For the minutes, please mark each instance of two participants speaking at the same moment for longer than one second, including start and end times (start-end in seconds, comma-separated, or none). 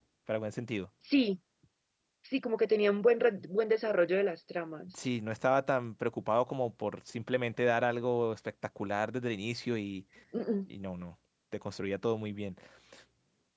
none